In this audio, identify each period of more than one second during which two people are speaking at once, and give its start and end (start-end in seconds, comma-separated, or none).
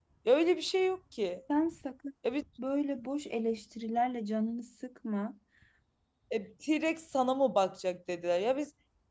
none